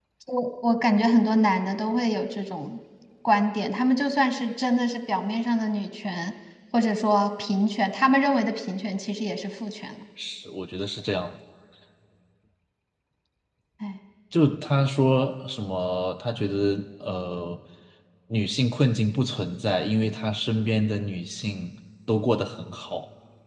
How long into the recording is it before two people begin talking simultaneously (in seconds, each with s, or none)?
none